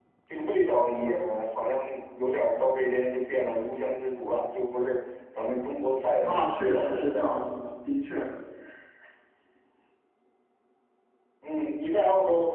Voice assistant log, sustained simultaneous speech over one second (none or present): present